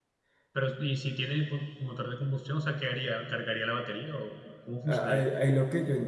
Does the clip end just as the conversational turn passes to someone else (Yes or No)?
Yes